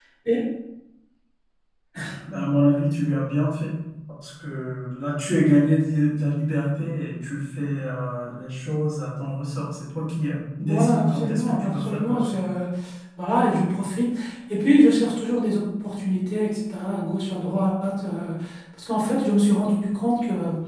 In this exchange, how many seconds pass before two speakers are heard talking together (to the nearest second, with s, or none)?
11 s